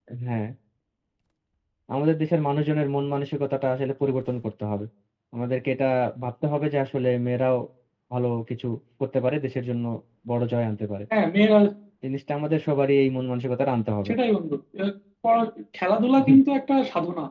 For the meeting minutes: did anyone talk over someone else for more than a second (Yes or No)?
No